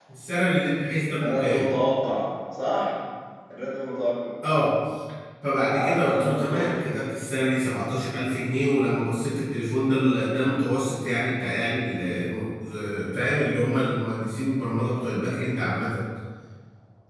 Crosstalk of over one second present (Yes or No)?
Yes